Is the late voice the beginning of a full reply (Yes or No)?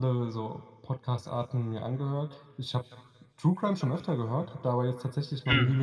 No